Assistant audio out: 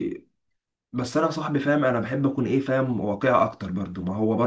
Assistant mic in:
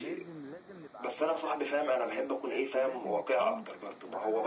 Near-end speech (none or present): present